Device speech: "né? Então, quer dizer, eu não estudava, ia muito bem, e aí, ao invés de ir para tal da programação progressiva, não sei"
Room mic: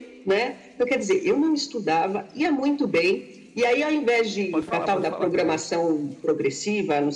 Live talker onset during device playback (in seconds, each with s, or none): 4.5 s